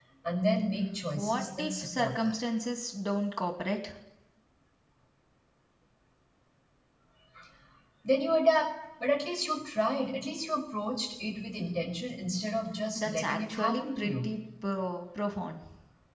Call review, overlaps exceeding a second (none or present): present